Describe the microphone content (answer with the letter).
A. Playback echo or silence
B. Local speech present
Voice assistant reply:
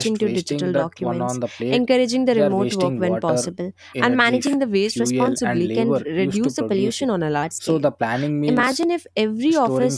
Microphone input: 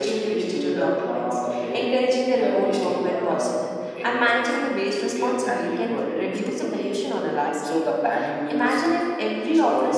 A